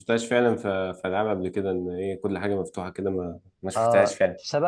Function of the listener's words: taking over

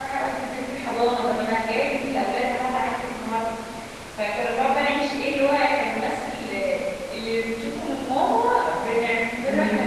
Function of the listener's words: listening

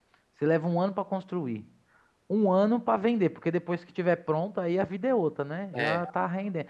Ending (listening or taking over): listening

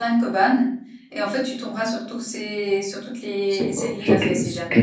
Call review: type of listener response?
taking over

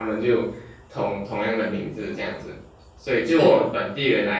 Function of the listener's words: listening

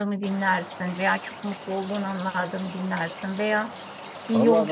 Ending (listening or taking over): listening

